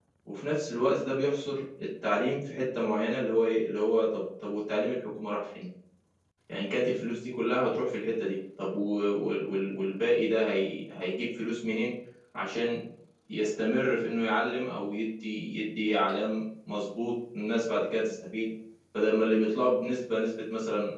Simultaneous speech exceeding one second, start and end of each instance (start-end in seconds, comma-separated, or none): none